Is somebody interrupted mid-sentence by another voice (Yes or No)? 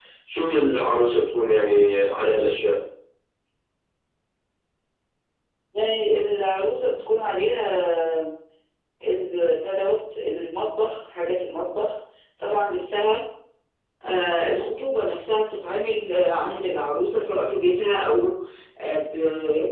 No